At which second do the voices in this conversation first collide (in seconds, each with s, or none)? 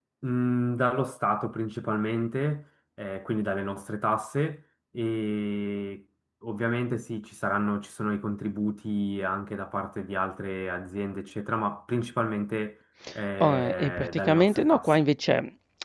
13.4 s